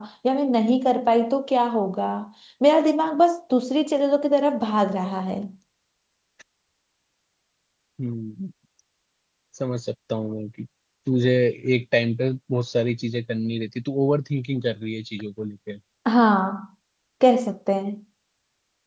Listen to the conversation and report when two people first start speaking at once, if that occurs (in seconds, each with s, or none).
none